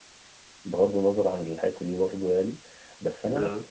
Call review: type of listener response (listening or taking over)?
listening